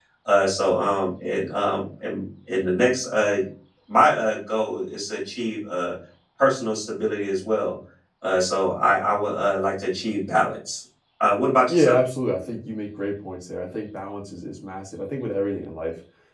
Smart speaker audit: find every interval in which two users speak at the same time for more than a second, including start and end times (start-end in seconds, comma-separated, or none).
none